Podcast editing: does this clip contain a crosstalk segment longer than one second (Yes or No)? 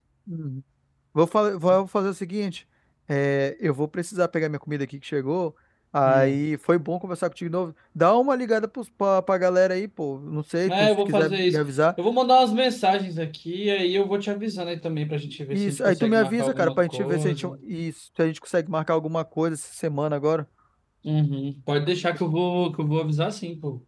Yes